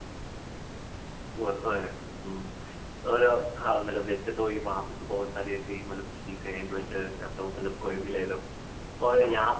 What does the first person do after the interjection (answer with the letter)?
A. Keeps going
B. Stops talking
A